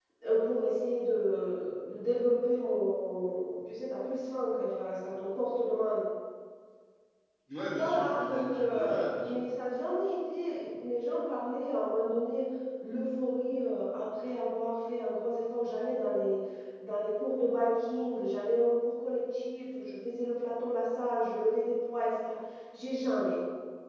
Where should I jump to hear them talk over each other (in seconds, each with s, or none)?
7.8 s